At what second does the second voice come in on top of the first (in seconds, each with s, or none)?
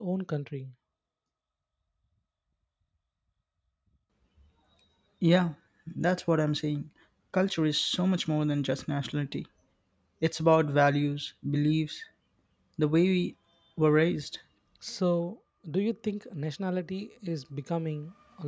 none